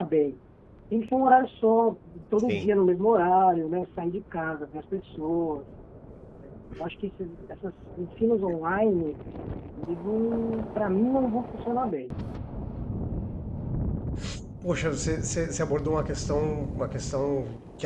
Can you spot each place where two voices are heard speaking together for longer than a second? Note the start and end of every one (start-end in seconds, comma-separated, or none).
none